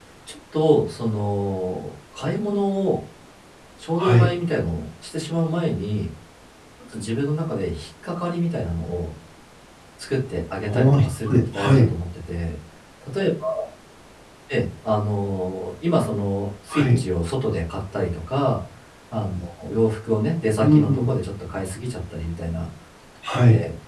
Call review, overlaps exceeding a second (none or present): present